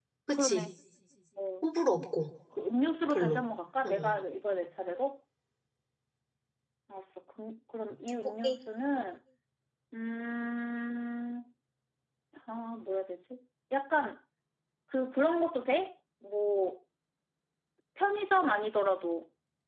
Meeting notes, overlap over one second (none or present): none